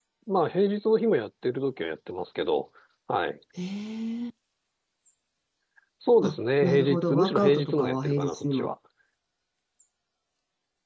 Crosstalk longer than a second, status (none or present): present